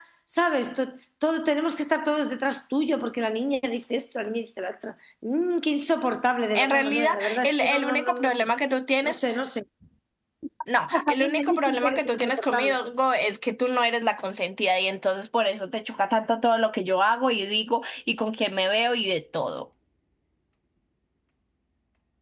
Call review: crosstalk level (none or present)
present